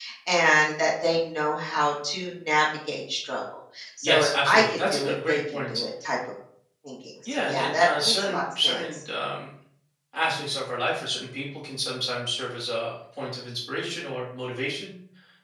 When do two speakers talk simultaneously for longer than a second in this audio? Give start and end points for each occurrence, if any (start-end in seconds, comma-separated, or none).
4.0-5.8, 7.2-9.0